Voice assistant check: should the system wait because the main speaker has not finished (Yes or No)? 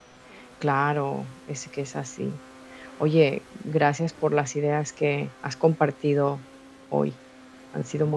No